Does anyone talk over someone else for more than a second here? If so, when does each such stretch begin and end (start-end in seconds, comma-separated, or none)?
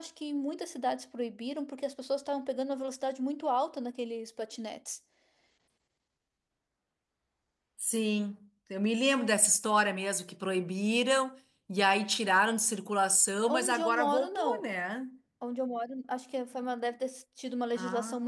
13.5-14.7